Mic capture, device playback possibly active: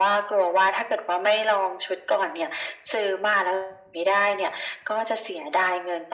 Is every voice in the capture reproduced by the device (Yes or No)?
Yes